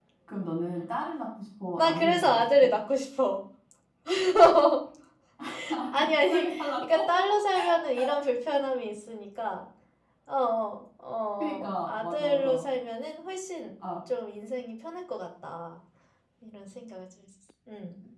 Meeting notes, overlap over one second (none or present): present